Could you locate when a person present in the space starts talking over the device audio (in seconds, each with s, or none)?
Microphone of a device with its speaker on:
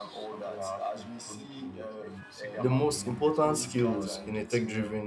2.6 s